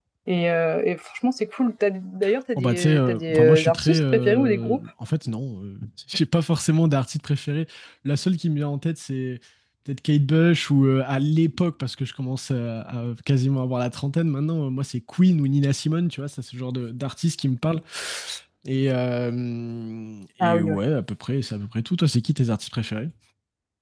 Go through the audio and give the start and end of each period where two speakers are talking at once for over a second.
2.6-4.8

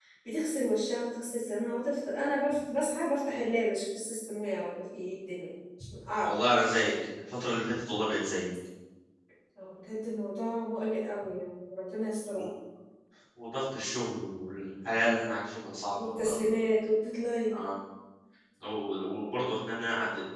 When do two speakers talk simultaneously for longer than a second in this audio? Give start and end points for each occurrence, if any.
none

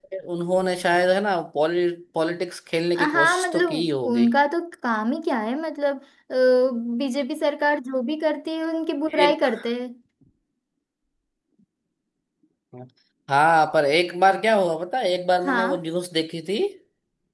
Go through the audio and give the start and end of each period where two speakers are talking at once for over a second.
3.0-4.2

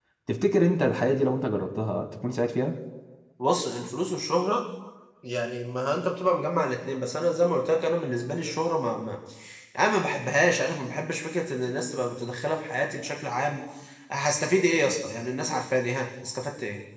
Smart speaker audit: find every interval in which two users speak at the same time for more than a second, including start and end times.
none

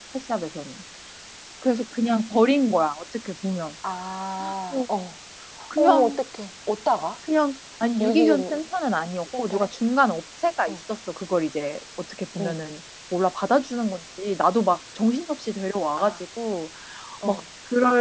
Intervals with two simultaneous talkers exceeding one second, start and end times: none

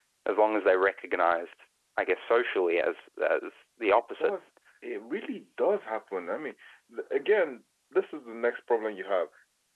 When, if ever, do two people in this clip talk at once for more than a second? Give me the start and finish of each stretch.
none

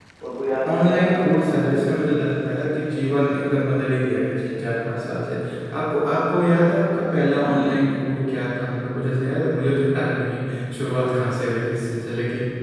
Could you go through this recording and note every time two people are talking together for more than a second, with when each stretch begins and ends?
0.5-2.0

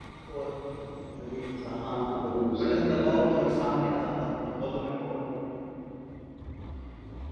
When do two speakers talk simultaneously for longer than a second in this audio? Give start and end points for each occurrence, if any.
1.7-3.5

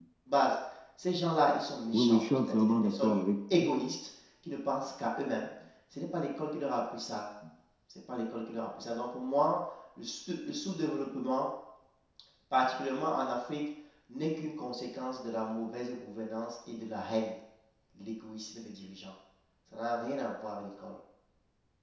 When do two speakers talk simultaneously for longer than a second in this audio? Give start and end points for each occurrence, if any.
1.9-3.1

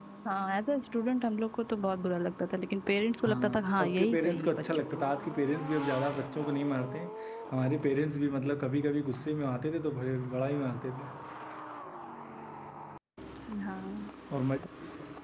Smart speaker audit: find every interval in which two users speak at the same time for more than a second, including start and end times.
3.3-5.1

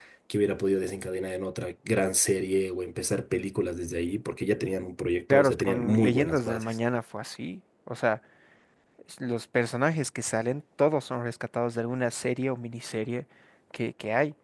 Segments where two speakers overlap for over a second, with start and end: 5.3-6.8

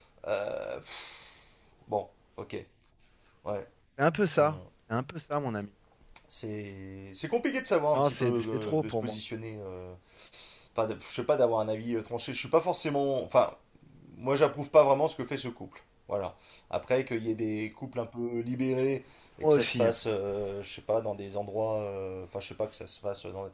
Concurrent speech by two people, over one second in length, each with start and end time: 7.9-9.1

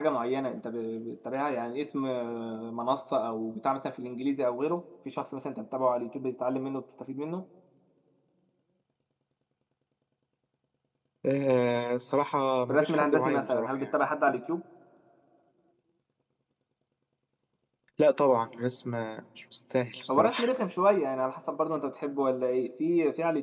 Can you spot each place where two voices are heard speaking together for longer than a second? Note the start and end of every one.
12.7-13.9

